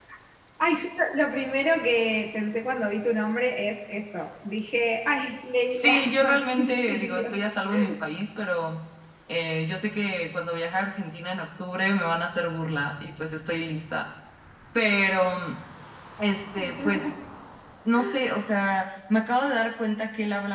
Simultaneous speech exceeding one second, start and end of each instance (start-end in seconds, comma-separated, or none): 5.7-7.4